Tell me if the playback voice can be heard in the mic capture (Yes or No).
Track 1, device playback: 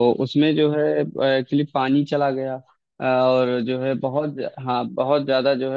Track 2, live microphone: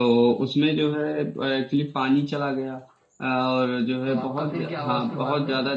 Yes